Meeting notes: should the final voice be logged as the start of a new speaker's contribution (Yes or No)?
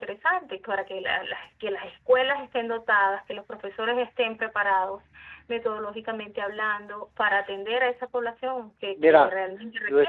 Yes